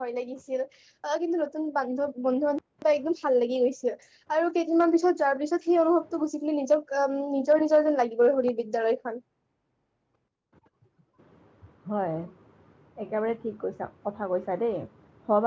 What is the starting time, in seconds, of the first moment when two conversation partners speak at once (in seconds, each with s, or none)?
none